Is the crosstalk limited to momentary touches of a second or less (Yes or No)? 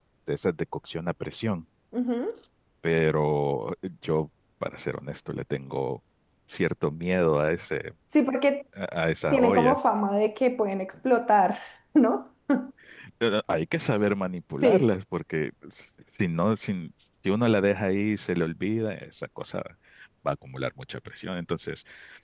Yes